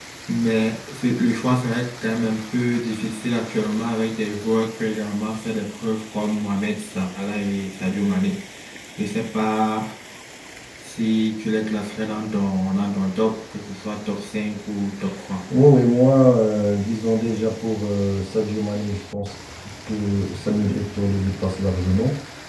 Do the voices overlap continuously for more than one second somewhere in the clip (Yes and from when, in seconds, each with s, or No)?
No